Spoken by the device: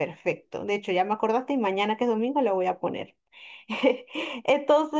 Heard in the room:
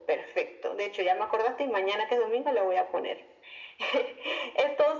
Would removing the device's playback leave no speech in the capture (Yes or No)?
Yes